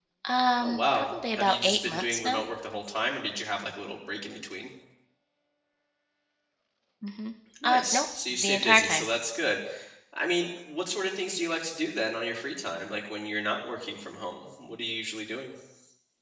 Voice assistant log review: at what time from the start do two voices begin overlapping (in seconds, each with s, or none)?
0.6 s